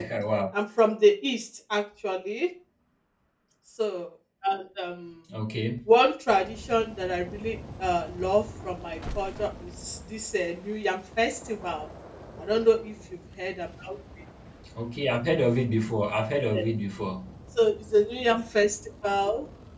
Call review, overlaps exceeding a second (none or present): none